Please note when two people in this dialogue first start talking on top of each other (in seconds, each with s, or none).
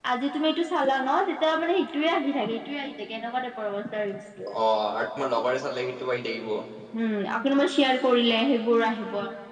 none